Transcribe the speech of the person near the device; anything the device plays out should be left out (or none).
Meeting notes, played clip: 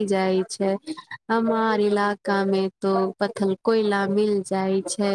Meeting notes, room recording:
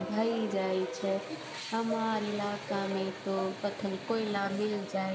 none